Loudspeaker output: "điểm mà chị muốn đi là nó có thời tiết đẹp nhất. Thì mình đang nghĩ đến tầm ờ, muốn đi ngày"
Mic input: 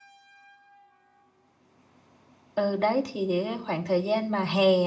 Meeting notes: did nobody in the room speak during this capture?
No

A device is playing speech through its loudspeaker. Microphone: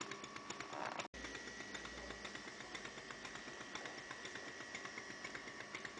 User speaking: No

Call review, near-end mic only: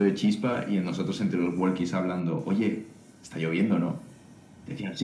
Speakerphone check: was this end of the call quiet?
Yes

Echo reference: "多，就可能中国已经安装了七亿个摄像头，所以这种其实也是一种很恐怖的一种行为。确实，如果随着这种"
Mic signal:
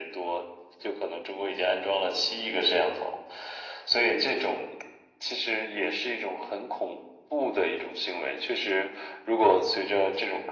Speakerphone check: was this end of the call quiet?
Yes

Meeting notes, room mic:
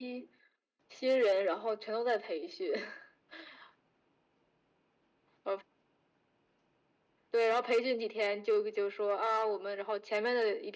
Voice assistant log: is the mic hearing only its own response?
Yes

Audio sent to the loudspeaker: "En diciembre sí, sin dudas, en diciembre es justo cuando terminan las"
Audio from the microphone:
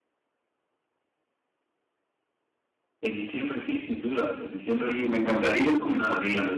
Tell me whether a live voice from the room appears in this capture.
Yes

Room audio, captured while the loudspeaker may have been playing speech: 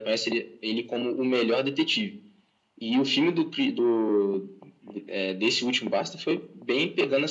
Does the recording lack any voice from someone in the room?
Yes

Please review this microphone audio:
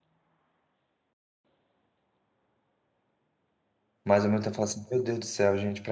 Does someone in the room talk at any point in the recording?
Yes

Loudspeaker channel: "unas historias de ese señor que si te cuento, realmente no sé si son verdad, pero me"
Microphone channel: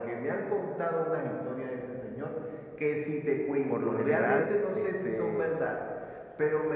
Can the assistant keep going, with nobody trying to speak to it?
No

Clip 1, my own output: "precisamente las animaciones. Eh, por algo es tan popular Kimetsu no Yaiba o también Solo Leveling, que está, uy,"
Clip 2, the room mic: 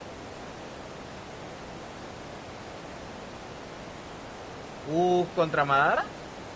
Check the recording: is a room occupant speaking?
Yes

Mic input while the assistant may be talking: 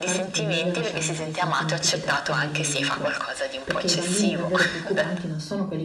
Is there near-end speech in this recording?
Yes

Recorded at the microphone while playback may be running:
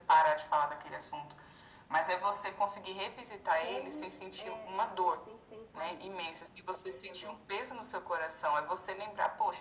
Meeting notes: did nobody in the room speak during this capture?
No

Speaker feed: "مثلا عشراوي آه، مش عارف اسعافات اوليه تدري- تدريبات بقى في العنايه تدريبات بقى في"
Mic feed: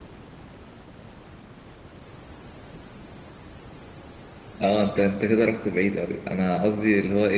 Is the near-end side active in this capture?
Yes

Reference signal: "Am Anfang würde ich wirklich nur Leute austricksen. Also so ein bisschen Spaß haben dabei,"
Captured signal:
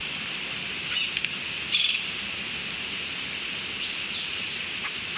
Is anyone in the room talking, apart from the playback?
No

